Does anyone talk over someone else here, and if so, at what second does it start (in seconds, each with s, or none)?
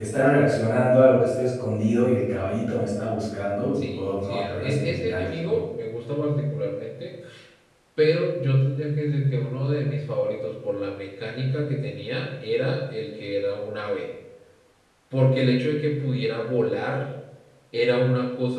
3.8 s